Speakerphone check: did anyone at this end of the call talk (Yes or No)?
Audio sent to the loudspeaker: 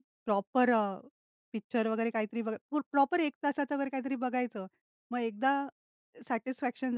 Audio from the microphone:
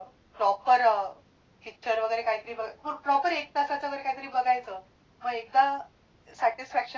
No